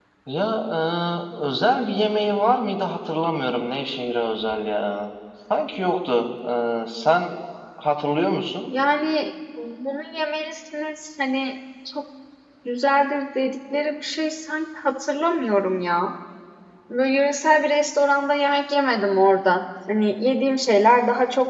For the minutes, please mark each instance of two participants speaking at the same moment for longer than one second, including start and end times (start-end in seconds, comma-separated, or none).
none